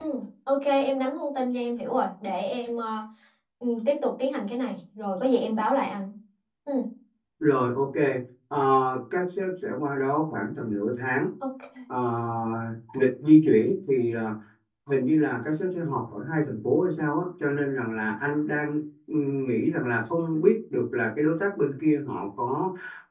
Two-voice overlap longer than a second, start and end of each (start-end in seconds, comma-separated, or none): none